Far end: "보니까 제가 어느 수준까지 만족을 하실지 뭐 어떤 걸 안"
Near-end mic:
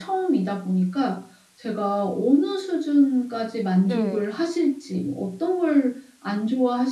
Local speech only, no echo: 네.

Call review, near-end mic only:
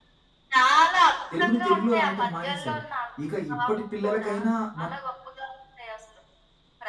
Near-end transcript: తెలుగుని తెలుగులో రాయటం మానేశారు. ఇక ఇప్పటి పిల్లలకైనా మనం

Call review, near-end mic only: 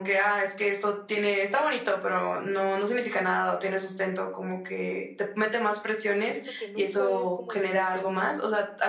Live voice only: siento que nunca es como suficiente.

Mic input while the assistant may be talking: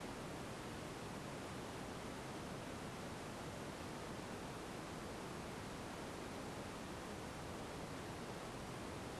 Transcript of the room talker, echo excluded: none

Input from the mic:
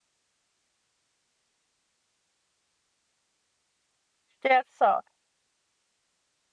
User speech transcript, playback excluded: That's so

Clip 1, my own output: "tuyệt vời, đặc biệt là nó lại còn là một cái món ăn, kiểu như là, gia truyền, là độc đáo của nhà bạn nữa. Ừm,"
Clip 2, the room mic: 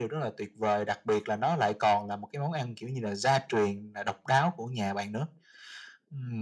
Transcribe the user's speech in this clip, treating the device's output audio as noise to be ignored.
none

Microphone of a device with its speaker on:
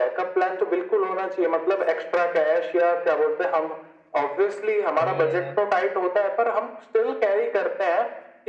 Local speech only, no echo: सही है यार।

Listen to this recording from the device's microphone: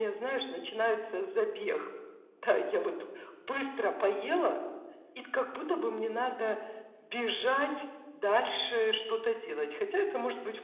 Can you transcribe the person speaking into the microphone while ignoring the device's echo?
none

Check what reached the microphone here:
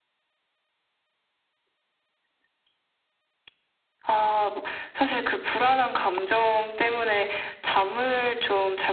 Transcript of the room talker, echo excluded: none

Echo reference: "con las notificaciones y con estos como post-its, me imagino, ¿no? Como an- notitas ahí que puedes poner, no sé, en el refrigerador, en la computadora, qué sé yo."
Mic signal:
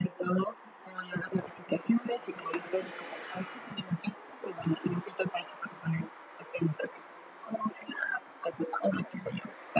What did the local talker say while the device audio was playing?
none

